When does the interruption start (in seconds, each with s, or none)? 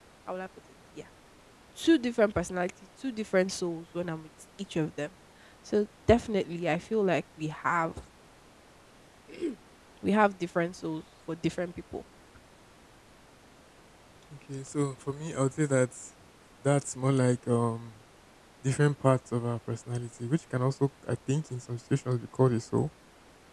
none